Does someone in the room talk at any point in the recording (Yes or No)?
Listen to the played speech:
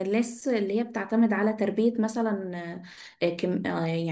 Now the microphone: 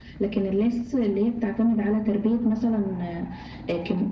No